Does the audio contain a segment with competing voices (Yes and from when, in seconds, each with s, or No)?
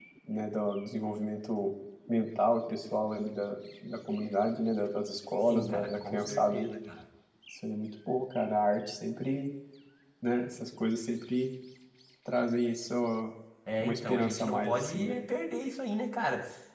Yes, from 5.5 s